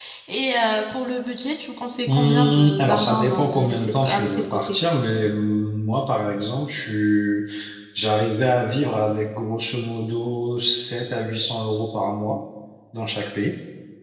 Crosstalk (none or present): present